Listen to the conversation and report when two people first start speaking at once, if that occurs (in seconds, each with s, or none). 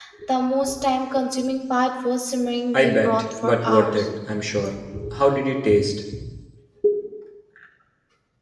2.7 s